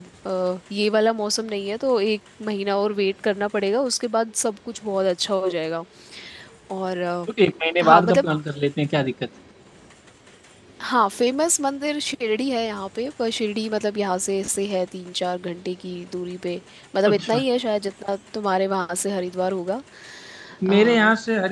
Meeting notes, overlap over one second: none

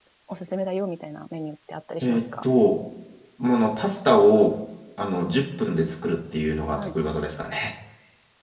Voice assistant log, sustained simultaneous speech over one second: none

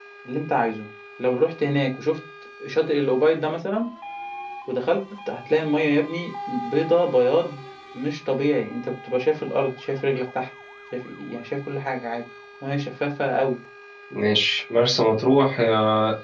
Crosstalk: none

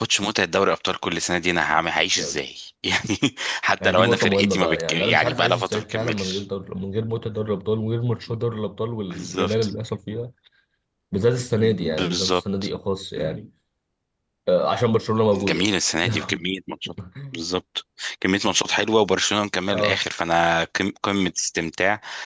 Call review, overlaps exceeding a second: present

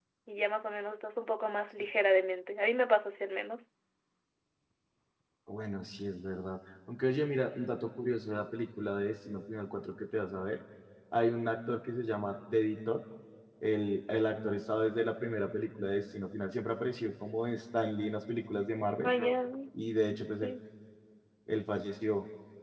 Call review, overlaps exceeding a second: none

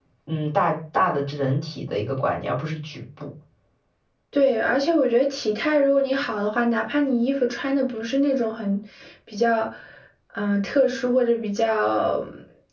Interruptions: none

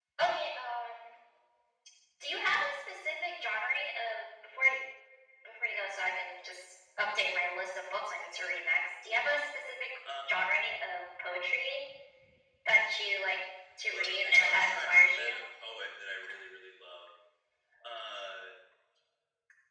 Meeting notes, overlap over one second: present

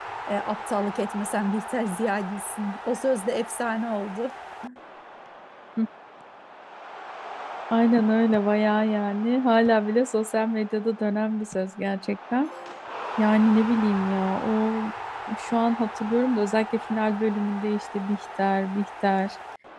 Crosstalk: none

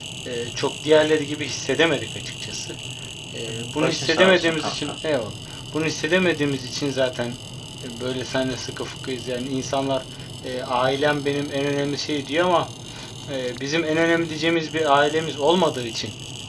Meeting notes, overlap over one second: present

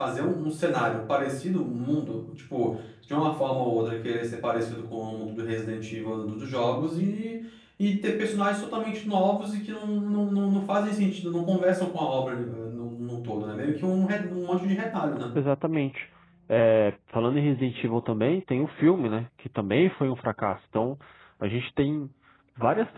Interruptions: none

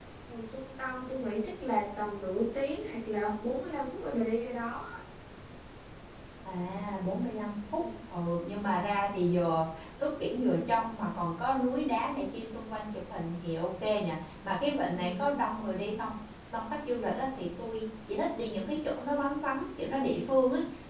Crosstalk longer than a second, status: none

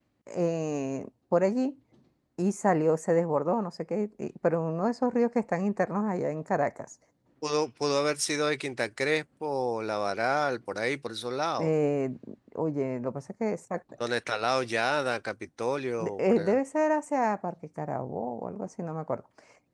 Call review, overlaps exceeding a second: none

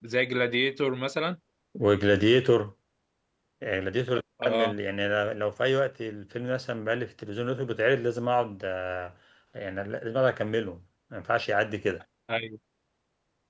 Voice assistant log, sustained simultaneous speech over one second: none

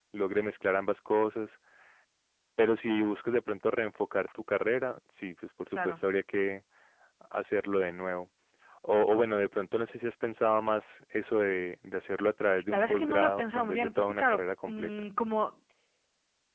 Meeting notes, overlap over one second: present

